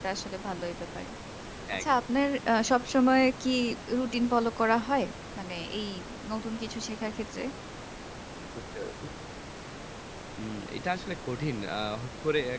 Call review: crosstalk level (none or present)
none